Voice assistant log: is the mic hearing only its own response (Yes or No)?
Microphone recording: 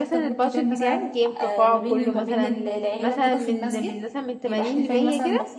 No